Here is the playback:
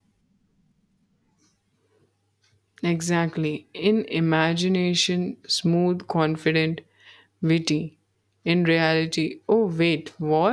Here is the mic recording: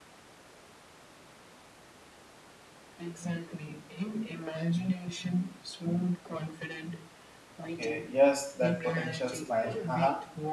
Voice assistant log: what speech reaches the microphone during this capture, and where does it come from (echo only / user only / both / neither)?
both